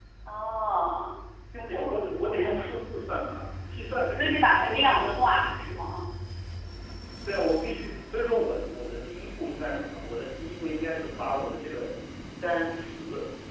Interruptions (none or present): present